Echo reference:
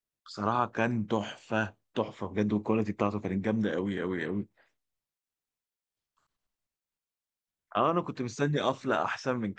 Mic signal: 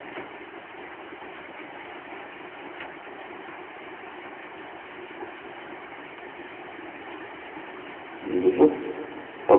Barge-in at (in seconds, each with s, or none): 8.2 s